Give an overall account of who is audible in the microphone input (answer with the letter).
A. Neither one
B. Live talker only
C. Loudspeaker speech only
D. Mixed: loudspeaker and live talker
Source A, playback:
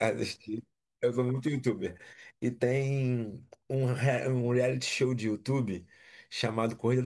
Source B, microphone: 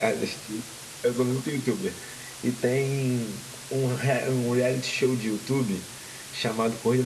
C